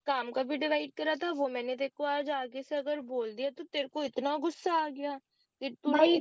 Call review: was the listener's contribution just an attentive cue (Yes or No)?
No